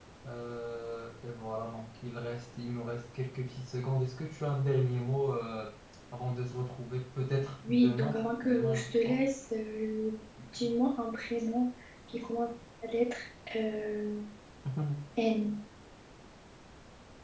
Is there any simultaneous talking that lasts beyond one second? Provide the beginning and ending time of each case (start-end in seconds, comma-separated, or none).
7.6-9.2